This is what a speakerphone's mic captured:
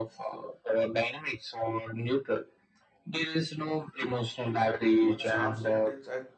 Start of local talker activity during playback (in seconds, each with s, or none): 5.1 s